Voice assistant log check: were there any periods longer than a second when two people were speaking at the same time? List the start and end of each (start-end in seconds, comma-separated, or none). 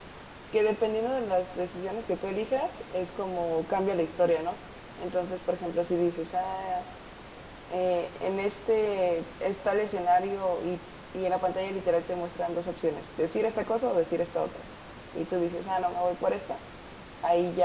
none